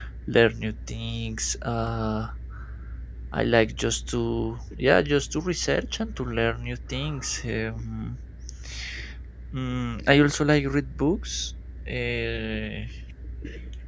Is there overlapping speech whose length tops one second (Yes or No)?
No